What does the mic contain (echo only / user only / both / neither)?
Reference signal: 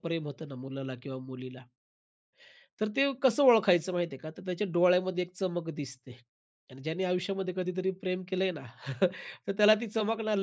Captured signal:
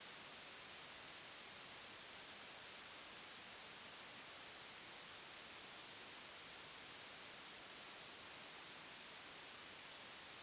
neither